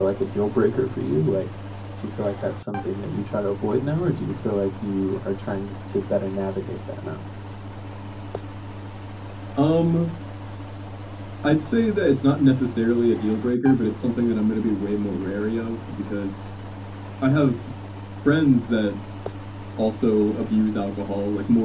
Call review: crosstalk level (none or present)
none